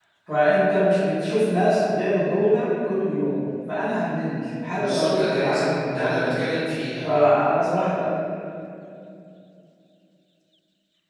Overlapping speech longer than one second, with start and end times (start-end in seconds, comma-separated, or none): 4.7-6.3